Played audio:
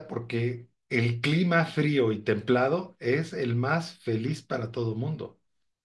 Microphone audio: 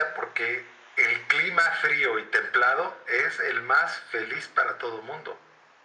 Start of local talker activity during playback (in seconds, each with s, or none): none